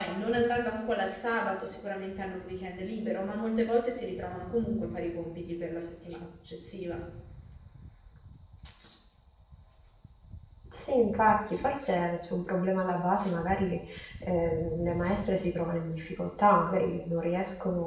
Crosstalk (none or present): none